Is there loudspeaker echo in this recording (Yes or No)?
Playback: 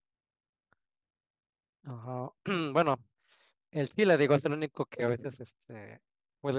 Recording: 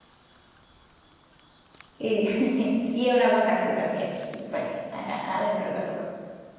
No